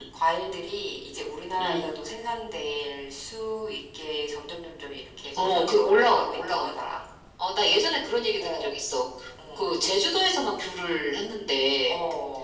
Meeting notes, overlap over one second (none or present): present